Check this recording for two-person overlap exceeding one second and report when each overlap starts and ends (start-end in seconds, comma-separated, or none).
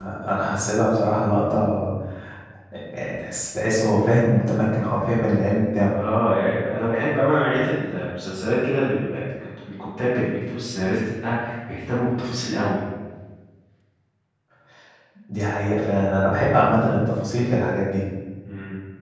none